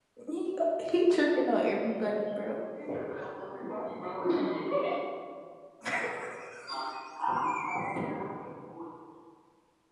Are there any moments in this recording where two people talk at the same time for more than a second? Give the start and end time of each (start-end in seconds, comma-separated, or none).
none